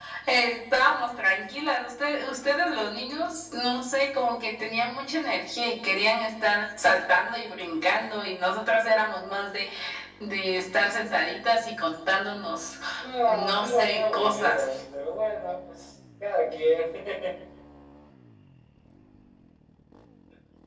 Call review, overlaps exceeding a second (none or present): present